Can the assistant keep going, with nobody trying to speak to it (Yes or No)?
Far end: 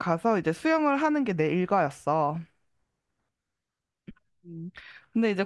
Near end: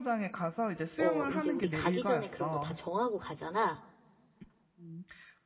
No